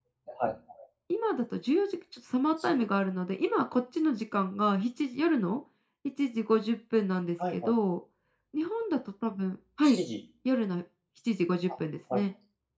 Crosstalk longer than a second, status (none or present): none